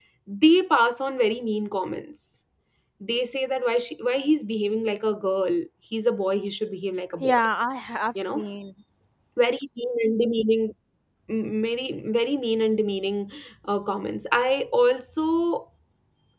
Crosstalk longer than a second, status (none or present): none